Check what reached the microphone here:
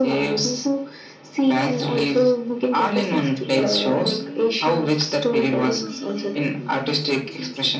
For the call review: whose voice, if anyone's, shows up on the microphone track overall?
both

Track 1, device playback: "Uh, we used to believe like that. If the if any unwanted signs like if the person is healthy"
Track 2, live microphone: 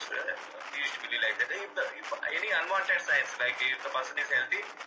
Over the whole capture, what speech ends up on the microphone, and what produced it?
echo only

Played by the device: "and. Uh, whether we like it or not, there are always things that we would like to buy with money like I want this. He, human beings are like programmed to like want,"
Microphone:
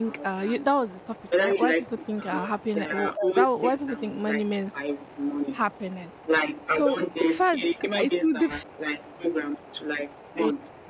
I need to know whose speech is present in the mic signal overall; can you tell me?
both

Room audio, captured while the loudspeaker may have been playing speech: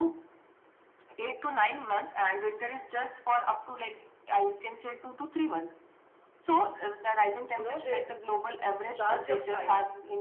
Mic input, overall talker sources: both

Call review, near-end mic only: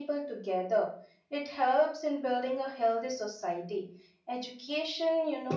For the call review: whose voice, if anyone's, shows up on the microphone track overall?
echo only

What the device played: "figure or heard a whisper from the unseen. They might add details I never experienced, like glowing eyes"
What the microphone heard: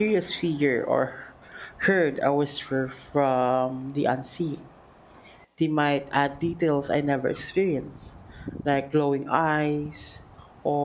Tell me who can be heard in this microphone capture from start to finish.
echo only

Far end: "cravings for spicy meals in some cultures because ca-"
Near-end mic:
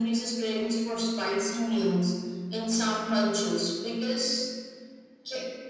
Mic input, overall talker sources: echo only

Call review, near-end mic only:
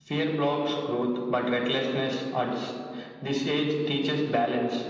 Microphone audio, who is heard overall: echo only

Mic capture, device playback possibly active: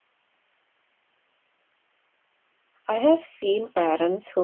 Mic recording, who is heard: user only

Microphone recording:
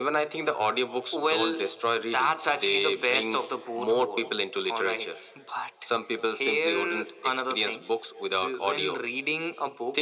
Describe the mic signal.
echo only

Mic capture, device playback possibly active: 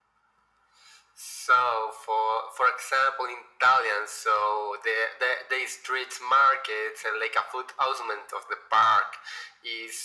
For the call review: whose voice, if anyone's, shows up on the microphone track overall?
echo only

